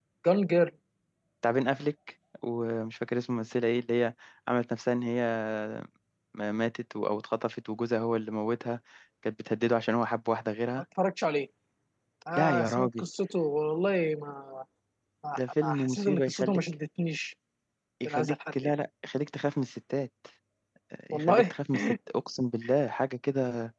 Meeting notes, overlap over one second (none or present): present